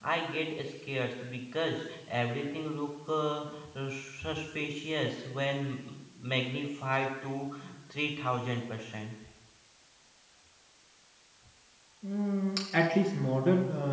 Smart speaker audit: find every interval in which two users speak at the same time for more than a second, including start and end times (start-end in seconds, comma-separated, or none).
none